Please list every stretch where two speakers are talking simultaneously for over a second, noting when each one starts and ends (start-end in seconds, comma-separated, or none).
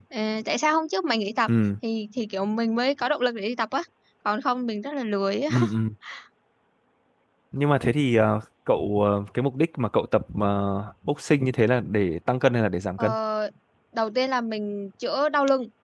none